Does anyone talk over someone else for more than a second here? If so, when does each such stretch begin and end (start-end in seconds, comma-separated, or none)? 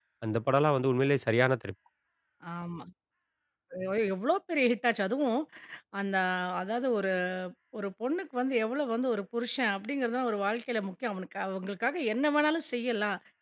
none